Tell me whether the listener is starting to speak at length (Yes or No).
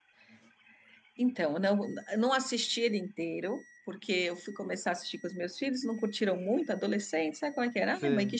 No